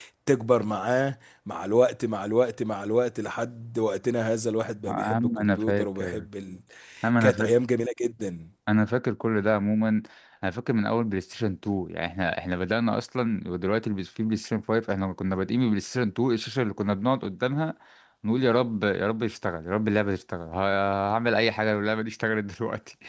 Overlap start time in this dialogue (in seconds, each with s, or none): 4.9 s